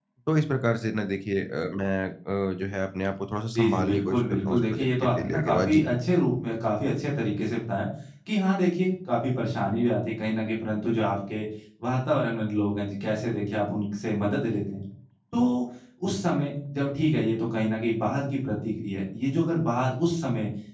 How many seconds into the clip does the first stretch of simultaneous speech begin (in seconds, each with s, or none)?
3.6 s